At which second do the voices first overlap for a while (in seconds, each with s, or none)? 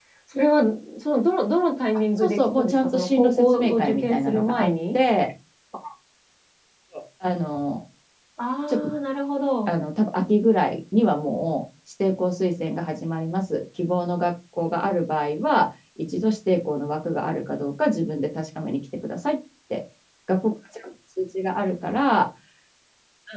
2.2 s